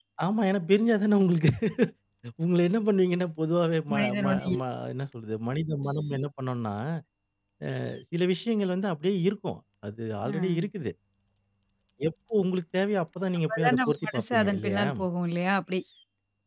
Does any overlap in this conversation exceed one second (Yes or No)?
Yes